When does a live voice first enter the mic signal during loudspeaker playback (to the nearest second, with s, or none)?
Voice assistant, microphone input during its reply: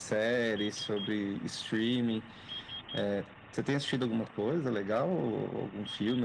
none